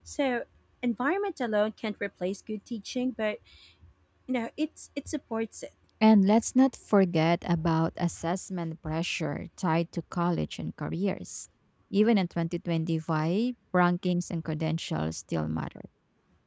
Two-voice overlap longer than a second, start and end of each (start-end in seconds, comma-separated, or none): none